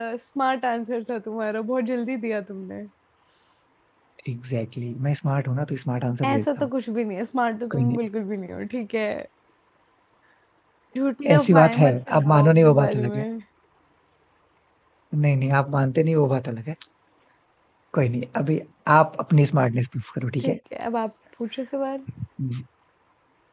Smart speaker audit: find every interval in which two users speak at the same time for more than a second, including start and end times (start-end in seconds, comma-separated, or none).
11.3-13.2